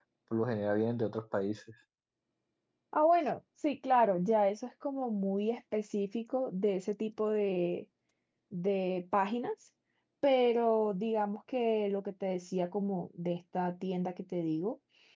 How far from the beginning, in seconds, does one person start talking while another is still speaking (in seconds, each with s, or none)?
none